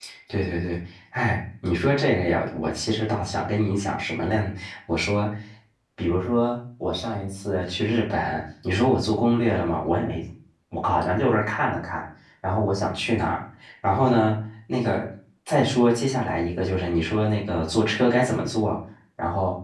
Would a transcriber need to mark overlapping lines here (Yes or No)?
No